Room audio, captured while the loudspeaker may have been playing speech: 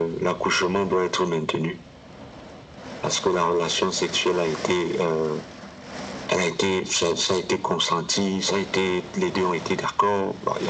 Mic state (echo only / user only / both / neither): echo only